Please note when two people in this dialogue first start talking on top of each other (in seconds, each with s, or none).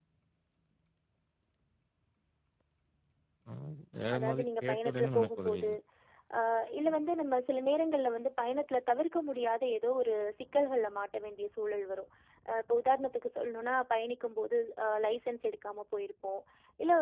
4.1 s